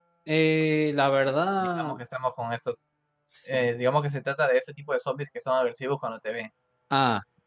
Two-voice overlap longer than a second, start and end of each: none

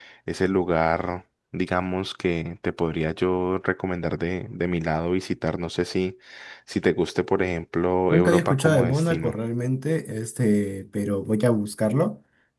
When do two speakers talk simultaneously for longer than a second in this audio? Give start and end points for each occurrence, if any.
8.1-9.3

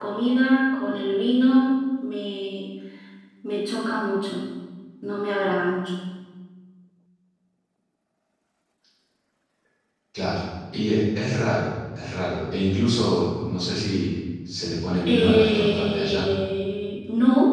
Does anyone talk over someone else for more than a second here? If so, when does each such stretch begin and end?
15.1-16.3

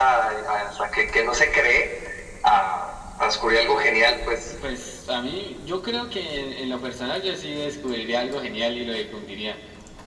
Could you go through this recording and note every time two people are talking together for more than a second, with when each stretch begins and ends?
none

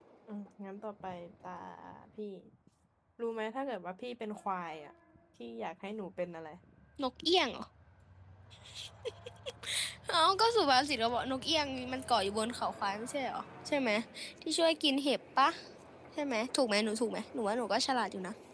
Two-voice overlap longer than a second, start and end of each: none

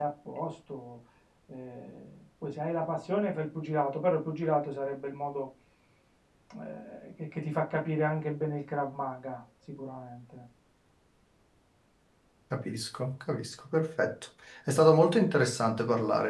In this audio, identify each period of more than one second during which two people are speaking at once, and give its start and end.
none

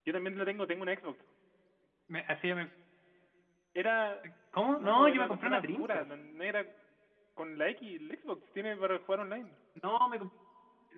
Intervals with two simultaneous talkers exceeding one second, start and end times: 4.8-6.1

